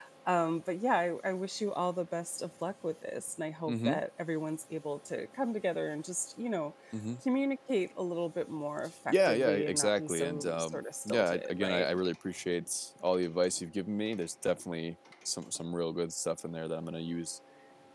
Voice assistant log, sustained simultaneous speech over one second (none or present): present